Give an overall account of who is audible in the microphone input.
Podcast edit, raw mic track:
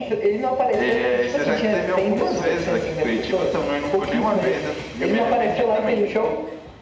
echo only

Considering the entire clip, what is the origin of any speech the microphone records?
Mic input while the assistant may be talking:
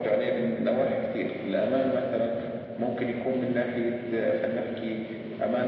echo only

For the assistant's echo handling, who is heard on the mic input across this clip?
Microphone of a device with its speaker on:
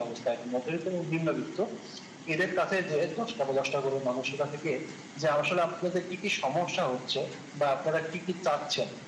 echo only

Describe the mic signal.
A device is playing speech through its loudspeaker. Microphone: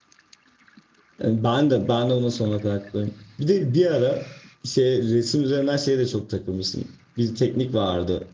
user only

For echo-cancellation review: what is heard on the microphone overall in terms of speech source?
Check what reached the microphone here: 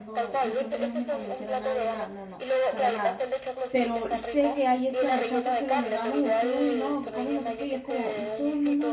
both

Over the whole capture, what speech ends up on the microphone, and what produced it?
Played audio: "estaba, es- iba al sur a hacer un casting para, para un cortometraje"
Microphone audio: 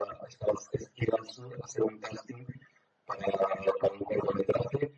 echo only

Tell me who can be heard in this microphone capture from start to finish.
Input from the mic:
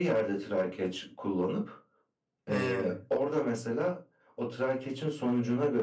both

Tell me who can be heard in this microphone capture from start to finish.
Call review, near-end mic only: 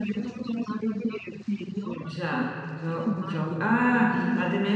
both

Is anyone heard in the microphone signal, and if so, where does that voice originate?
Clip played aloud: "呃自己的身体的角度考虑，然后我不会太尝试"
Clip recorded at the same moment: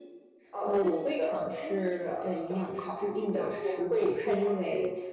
both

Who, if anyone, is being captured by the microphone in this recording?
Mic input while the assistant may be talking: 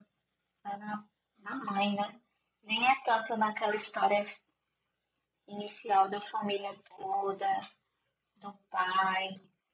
echo only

